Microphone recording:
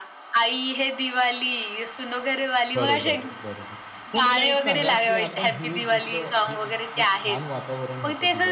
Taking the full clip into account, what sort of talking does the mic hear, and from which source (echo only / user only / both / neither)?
both